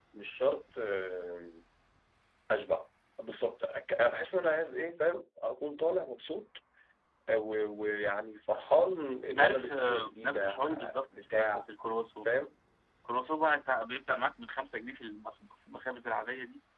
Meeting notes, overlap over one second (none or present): present